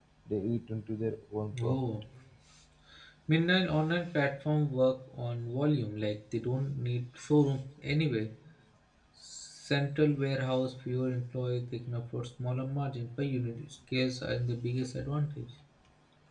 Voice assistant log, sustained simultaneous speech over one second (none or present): none